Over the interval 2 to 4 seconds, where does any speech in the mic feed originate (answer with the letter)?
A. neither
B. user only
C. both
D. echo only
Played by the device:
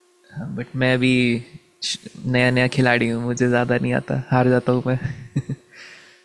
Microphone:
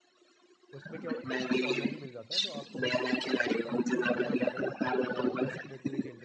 C